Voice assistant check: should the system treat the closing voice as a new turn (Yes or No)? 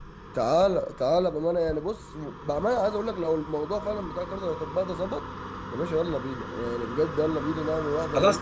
Yes